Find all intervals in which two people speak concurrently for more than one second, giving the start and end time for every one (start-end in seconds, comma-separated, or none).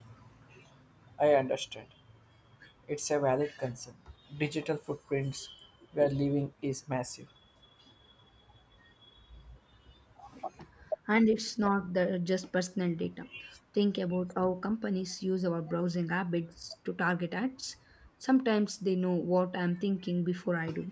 none